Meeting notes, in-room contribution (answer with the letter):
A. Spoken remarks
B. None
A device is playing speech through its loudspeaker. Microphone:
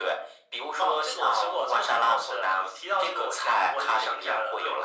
B